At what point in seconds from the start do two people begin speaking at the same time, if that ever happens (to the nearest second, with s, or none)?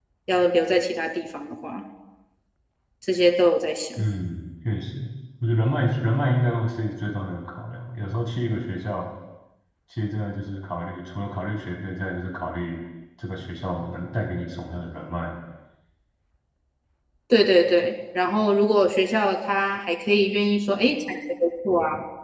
none